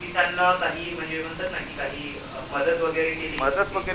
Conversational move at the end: taking over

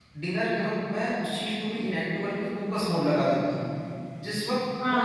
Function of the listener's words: taking over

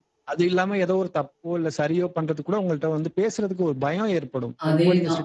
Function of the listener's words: listening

